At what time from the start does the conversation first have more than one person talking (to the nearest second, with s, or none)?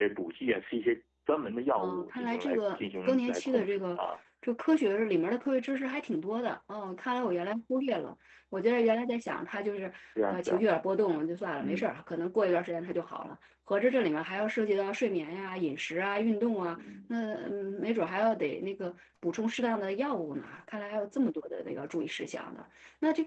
2 s